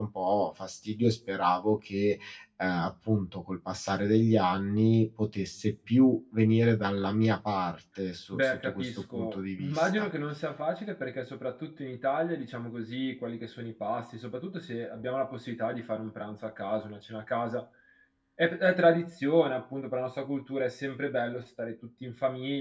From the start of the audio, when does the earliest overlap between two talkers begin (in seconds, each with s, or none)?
8.3 s